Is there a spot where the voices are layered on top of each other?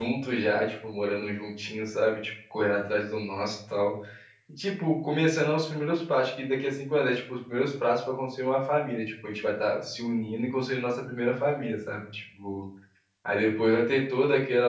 No

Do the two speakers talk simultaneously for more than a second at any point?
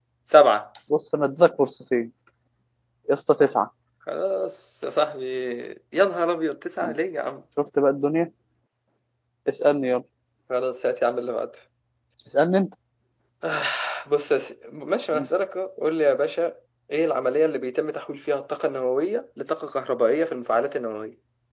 No

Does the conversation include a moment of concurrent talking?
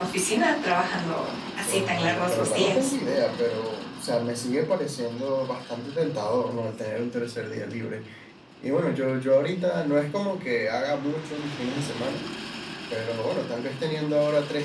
Yes, from 1.7 s

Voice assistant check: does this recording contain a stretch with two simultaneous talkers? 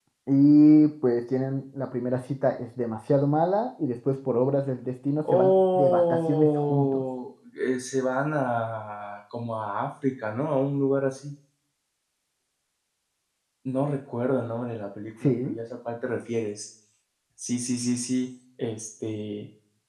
Yes, from 5.2 s

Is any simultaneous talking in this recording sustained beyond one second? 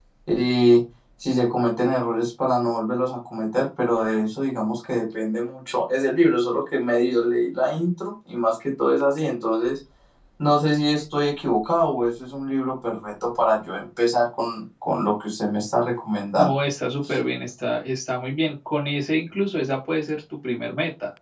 No

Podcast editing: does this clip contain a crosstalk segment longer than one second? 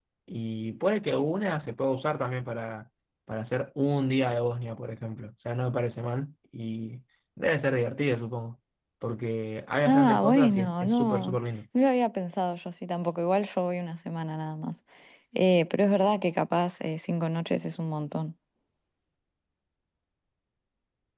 Yes, from 9.8 s

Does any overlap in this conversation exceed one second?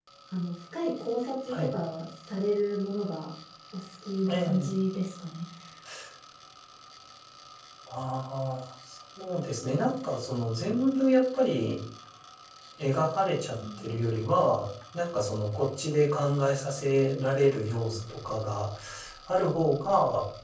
No

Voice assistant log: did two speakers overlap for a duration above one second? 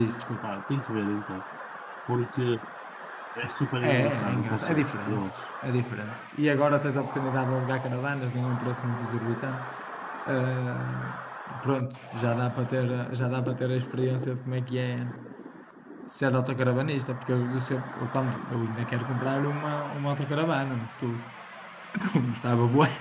Yes, from 3.8 s

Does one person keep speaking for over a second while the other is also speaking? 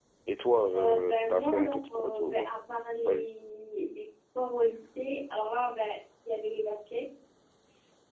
Yes, from 0.7 s

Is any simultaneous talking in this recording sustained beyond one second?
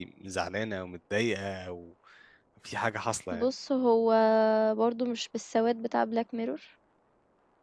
No

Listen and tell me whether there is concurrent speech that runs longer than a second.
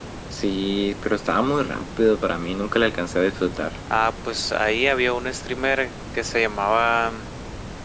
No

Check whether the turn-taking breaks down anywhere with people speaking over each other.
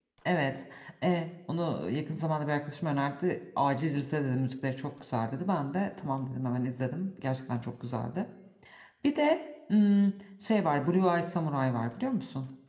No

